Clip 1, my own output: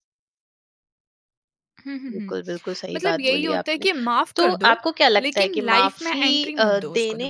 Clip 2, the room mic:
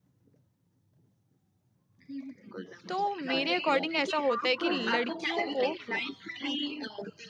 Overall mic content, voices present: both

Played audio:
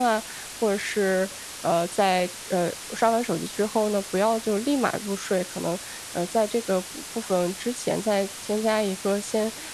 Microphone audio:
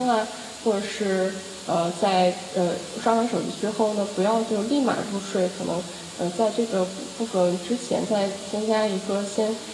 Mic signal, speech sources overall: echo only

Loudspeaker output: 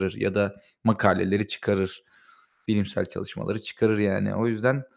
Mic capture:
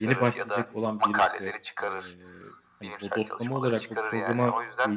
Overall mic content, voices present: both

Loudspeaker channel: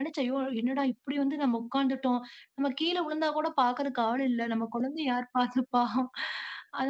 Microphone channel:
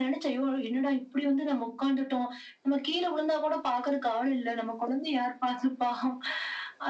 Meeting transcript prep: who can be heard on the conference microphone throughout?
echo only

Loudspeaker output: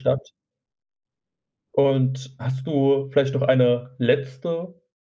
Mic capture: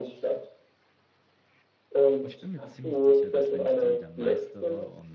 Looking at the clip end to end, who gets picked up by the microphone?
both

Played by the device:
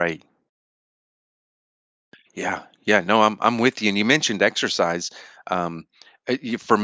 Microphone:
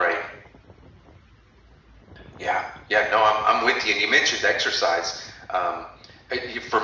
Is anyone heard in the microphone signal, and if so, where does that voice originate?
echo only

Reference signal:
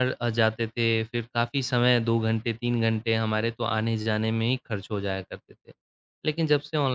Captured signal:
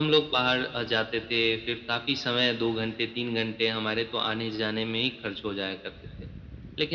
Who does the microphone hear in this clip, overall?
echo only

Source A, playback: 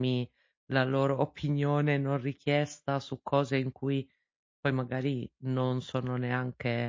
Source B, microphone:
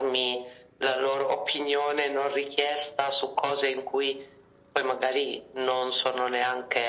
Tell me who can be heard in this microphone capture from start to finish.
echo only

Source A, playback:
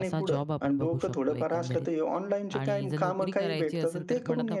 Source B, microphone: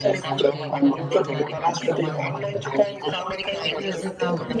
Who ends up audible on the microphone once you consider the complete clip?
both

